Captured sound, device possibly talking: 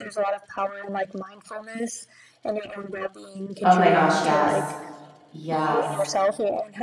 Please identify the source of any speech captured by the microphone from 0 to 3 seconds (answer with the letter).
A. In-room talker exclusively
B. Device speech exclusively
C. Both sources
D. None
B